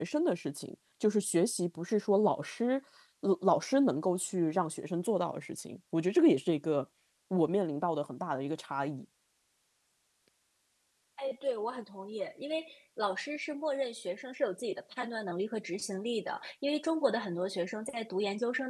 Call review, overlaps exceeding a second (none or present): none